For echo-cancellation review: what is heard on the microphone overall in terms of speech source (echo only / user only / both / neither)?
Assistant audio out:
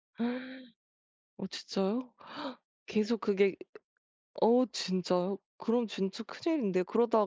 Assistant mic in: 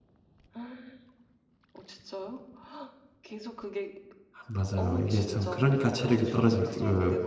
both